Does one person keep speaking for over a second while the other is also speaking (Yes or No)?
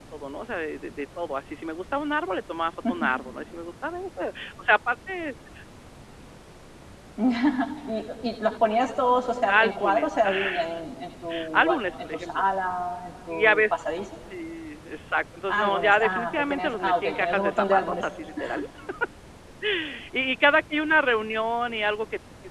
Yes